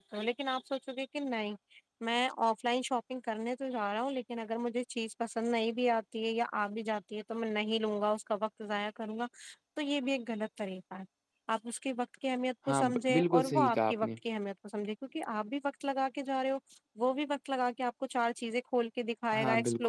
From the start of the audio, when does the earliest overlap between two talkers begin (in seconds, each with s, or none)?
12.7 s